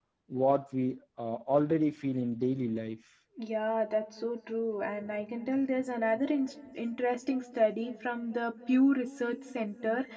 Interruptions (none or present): none